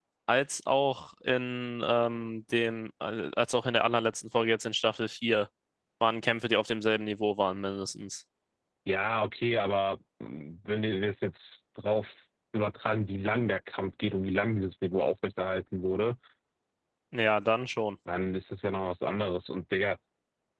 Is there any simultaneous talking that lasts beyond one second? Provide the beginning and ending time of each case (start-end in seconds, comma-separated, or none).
none